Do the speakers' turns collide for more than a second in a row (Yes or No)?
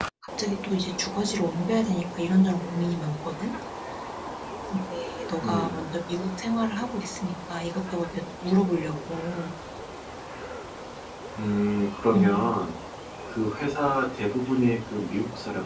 No